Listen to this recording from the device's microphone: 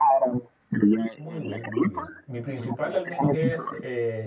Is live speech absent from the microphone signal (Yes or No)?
No